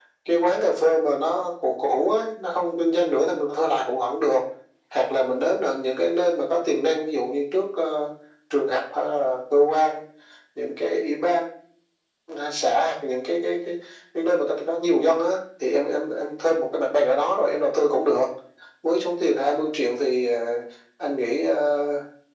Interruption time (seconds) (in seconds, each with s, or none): none